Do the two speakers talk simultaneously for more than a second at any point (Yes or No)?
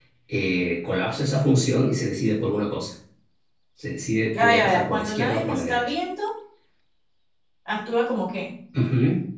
Yes